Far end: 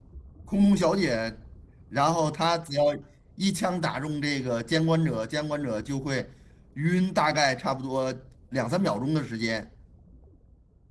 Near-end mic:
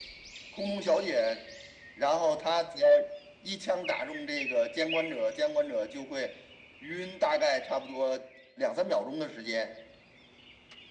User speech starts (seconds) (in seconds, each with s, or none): none